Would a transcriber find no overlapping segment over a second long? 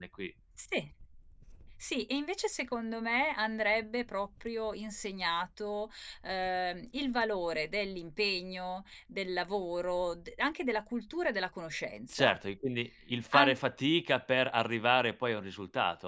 Yes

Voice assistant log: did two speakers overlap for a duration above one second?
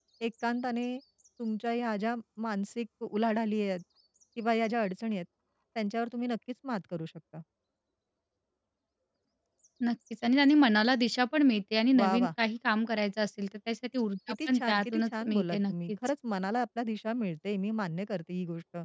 Yes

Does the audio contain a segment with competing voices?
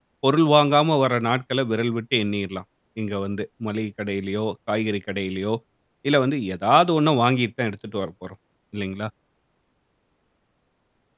No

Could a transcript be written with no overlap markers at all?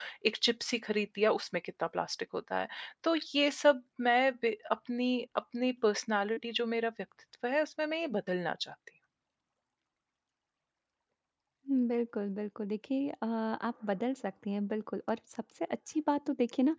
Yes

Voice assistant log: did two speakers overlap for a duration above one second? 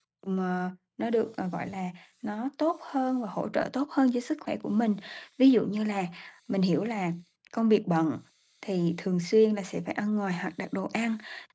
No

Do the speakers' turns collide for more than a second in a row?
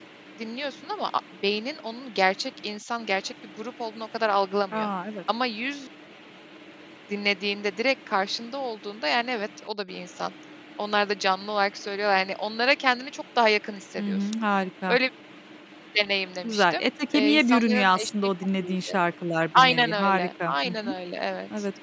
Yes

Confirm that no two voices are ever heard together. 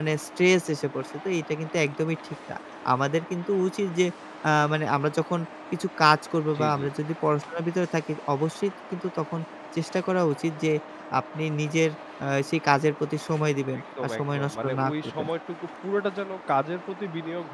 No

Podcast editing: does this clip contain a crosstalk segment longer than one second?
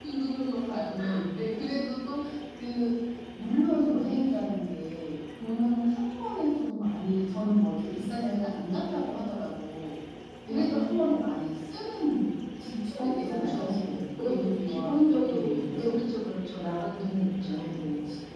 Yes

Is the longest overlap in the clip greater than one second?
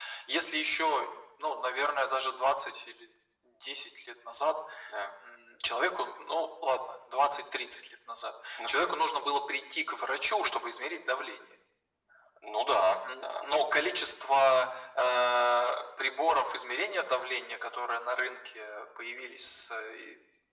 No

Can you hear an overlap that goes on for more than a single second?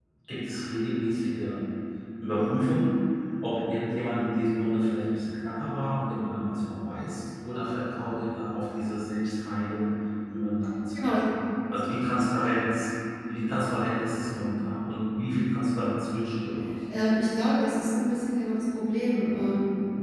No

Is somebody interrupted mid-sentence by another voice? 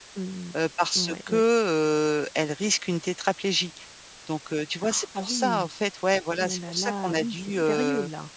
Yes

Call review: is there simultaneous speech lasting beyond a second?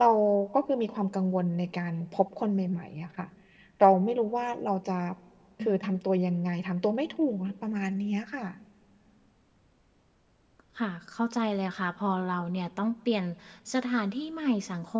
No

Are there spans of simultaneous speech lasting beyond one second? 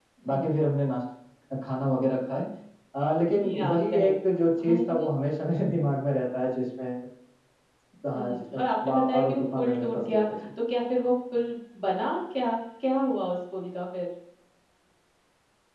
Yes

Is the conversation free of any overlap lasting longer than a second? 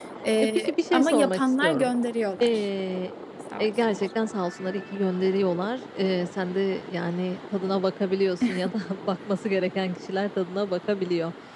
No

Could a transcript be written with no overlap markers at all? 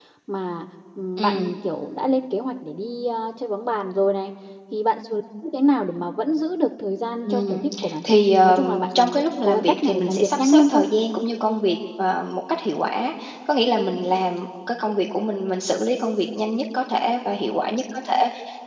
No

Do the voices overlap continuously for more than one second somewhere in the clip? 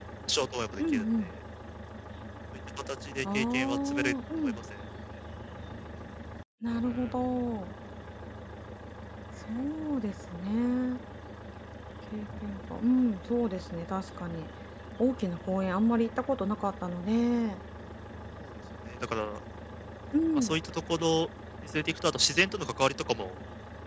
Yes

